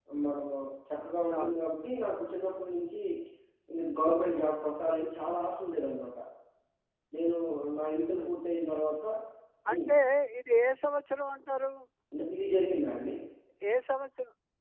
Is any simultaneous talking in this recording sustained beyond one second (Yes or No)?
No